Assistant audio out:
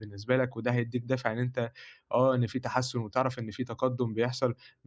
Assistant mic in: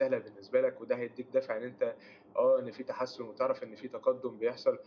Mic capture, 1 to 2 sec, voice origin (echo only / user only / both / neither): echo only